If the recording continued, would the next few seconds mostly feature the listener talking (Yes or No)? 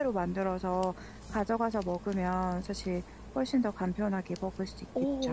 Yes